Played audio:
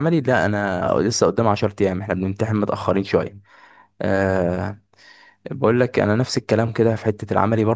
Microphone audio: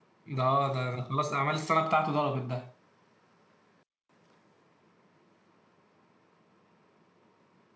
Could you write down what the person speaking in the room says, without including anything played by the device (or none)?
ده اه، ده ده خلاص اعمال السنه بتاعته ضربت ده